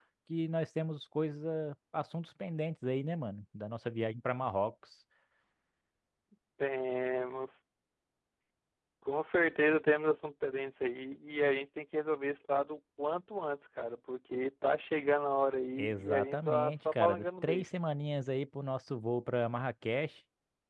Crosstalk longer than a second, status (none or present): present